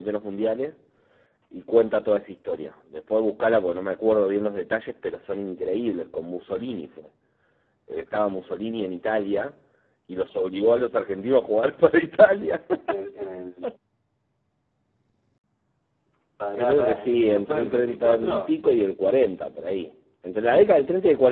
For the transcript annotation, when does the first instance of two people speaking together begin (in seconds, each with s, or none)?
16.6 s